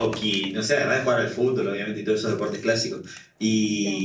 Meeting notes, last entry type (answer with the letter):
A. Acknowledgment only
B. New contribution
A